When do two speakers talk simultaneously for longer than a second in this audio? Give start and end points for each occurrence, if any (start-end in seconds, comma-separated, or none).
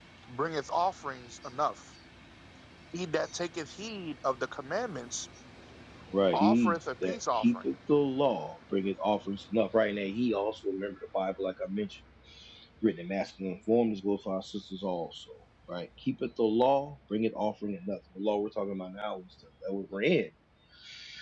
6.3-7.6